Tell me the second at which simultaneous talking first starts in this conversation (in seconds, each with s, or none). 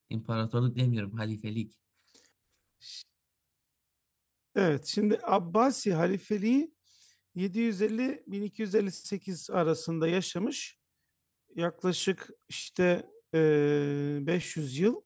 none